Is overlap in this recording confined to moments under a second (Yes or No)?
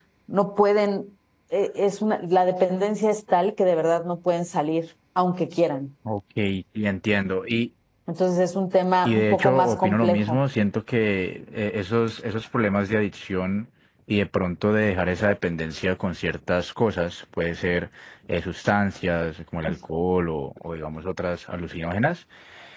No